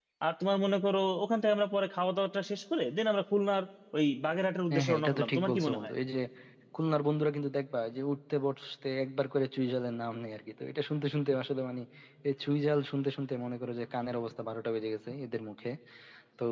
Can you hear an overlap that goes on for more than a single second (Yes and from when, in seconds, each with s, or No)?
Yes, from 4.7 s